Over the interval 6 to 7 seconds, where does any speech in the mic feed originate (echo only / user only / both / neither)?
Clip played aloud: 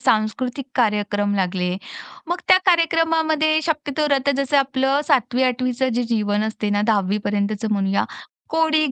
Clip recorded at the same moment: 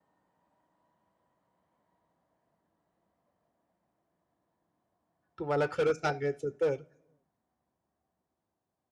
user only